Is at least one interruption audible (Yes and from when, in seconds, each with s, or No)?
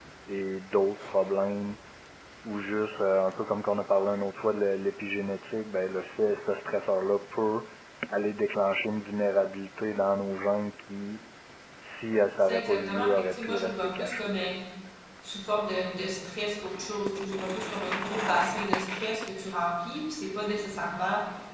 Yes, from 12.4 s